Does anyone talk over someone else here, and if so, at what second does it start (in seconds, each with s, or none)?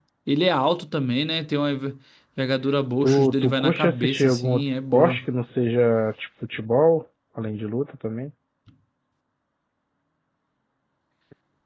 3.0 s